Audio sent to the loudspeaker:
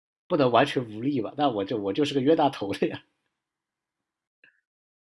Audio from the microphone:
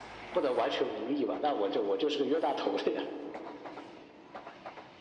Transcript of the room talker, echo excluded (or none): none